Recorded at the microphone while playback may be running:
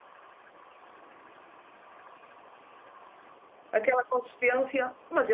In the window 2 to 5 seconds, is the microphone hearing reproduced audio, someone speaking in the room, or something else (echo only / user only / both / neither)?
user only